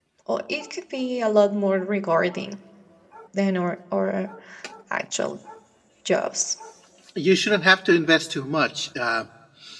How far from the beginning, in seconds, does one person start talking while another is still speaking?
none

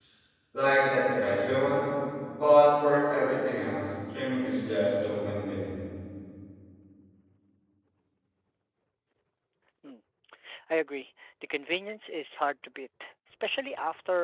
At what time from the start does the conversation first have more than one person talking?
none

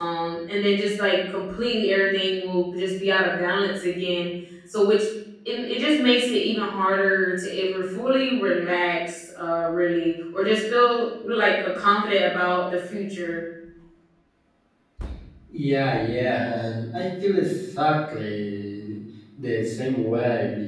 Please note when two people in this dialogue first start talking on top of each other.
none

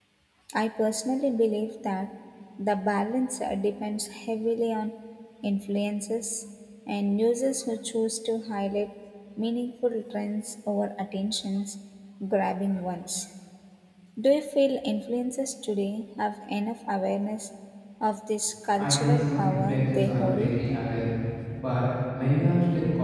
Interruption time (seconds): 18.8 s

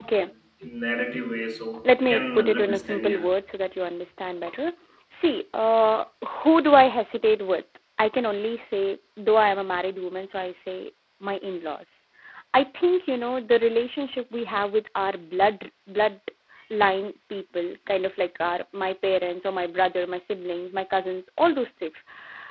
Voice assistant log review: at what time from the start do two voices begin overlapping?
1.8 s

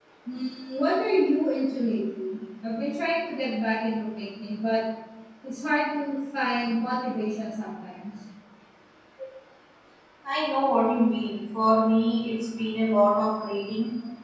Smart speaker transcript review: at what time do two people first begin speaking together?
none

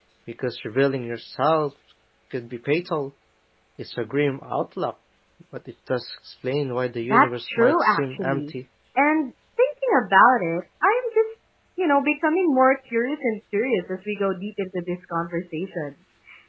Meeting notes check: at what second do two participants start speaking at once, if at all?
7.1 s

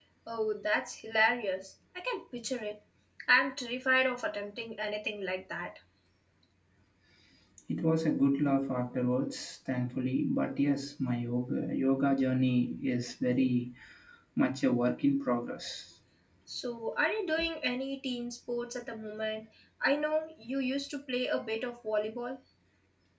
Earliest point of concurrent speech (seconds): none

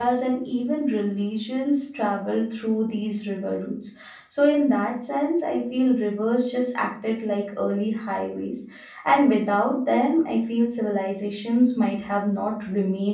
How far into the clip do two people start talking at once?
none

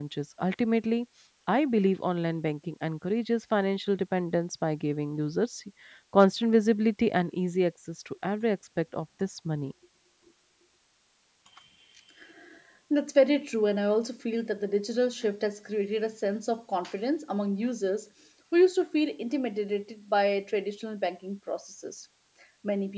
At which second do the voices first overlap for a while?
none

